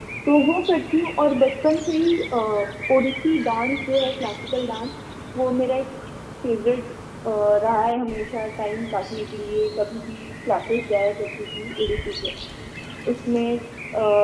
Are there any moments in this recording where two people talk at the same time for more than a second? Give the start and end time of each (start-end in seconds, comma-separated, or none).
none